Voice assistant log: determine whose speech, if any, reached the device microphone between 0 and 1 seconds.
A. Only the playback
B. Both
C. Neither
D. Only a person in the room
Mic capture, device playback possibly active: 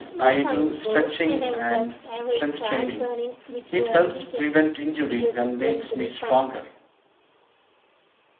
B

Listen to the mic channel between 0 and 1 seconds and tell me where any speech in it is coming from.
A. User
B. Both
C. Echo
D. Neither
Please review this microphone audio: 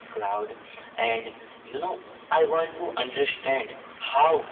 C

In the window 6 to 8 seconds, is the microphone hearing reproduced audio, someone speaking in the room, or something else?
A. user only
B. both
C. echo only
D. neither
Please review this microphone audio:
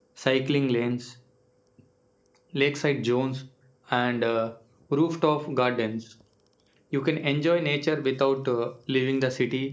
A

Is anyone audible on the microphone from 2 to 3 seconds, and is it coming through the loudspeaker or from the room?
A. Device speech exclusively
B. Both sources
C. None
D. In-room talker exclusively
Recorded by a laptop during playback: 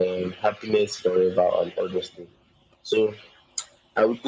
A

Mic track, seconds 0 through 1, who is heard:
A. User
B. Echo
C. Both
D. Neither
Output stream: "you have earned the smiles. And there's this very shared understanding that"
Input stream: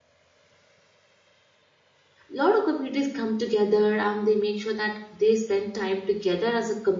D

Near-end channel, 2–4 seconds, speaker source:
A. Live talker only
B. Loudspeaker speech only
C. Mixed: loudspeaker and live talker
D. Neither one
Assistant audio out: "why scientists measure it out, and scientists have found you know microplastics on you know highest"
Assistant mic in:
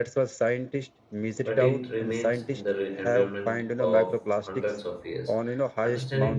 C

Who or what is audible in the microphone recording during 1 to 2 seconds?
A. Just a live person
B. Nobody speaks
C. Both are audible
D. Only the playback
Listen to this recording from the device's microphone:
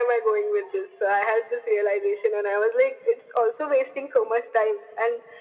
D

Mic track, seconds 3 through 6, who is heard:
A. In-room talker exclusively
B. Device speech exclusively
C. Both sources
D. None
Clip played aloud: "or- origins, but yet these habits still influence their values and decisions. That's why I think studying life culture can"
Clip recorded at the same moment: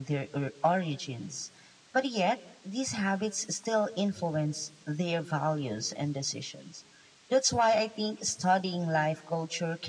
B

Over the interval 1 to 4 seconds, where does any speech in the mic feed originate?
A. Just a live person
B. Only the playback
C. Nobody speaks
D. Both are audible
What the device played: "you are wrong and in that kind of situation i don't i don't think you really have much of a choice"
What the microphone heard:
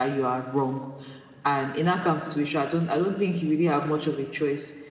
B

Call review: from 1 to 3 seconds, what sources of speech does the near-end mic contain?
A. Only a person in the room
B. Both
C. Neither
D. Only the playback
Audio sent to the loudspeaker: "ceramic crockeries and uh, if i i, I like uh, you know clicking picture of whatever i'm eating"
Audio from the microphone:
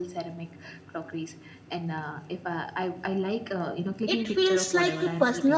D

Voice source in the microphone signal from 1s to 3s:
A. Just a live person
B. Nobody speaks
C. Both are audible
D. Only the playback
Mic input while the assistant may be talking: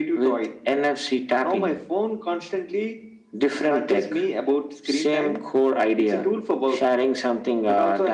D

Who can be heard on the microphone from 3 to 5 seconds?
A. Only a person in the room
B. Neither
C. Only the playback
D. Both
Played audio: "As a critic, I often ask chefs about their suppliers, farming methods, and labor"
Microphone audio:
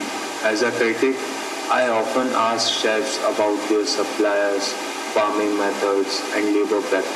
C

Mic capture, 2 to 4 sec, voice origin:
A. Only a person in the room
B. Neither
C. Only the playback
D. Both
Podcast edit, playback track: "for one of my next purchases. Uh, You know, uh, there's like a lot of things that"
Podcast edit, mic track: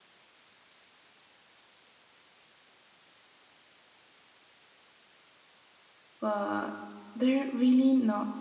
B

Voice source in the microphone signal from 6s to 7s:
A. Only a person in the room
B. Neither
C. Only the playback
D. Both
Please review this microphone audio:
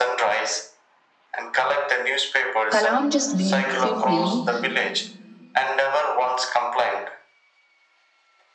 C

